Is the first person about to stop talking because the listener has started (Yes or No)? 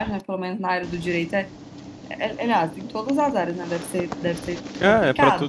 Yes